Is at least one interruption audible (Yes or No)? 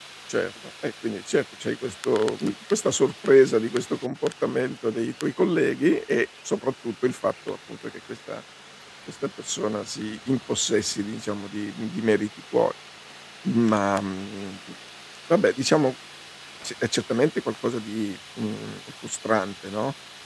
No